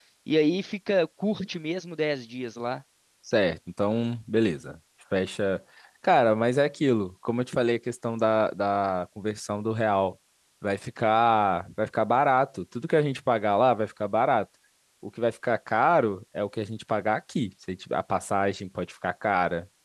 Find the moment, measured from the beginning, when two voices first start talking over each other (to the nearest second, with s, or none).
none